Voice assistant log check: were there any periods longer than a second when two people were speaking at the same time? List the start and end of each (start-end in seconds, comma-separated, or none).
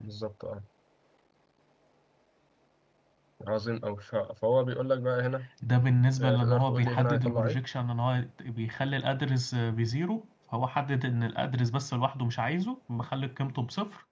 6.2-7.6